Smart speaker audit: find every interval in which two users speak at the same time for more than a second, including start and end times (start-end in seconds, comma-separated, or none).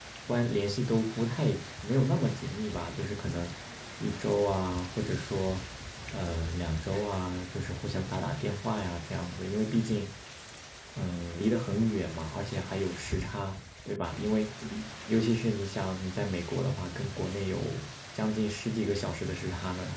none